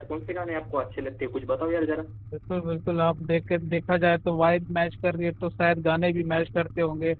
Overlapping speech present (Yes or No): No